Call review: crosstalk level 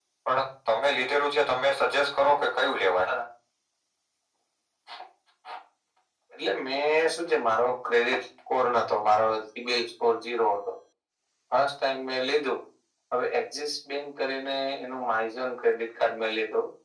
none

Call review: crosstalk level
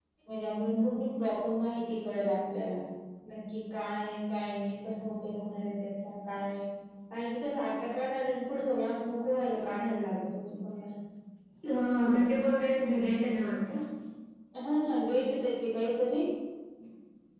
none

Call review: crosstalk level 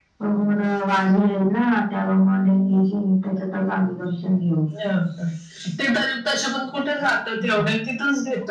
none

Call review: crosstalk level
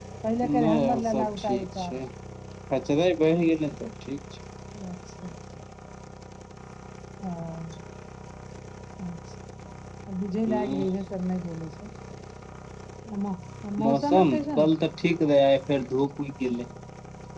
present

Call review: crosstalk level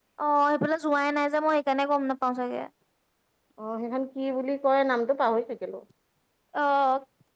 none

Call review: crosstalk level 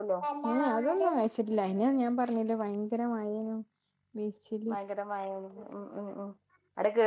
none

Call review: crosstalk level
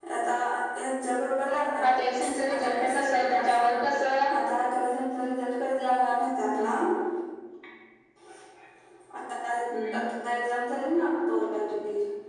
present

